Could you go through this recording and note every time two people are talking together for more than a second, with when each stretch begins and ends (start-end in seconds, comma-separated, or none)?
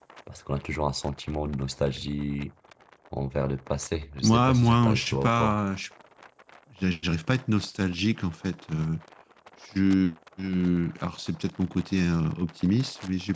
4.2-5.6